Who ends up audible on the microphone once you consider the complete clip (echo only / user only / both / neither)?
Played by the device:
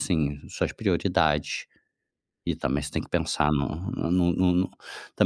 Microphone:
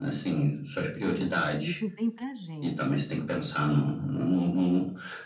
both